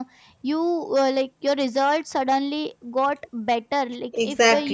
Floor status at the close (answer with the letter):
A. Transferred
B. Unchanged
B